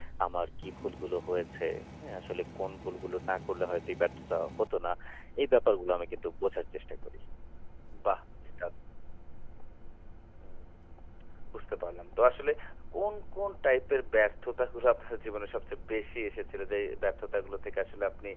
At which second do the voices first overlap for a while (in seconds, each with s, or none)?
none